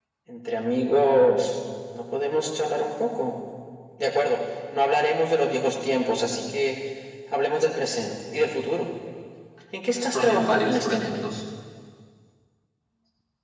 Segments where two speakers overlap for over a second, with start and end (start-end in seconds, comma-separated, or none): 10.0-11.3